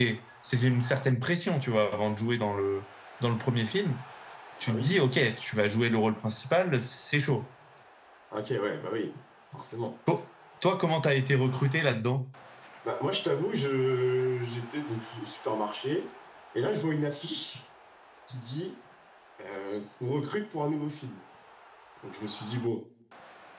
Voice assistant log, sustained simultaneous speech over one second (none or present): none